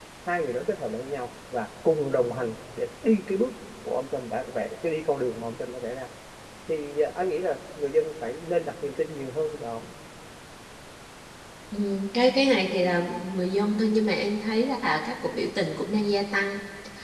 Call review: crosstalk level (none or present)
none